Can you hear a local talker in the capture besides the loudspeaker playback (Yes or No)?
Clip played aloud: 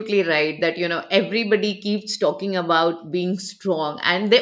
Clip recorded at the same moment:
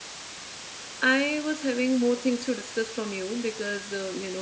Yes